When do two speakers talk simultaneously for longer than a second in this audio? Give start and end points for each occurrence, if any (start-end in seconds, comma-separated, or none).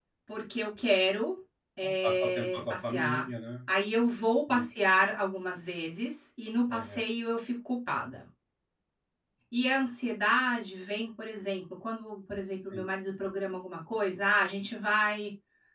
1.8-3.2